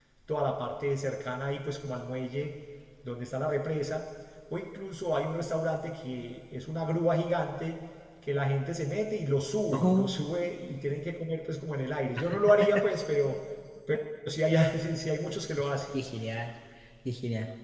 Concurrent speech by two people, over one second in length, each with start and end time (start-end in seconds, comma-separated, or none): none